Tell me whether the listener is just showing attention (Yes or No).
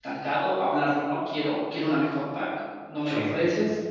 Yes